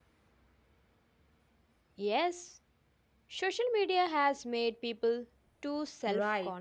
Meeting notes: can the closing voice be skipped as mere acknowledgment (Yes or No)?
No